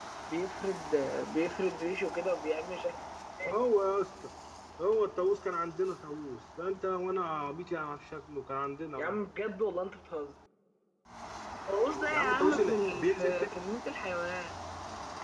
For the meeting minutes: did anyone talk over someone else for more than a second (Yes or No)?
Yes